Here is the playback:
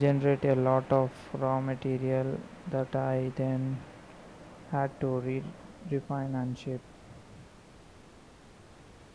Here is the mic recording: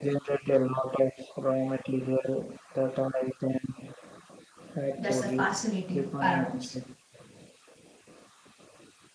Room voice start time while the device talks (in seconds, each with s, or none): 5.0 s